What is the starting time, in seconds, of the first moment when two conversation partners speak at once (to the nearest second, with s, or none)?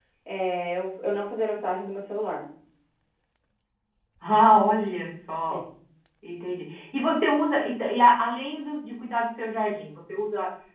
none